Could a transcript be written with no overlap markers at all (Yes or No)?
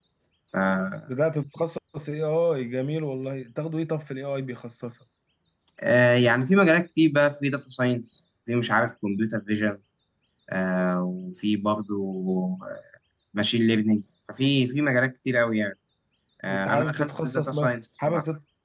No